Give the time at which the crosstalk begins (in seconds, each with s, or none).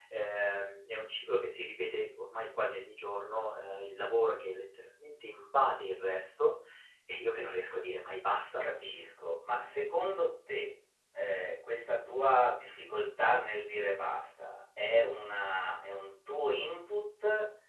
none